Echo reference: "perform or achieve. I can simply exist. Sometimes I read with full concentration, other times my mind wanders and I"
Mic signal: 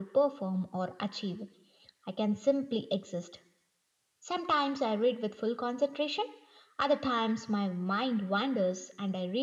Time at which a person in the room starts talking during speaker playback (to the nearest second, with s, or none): none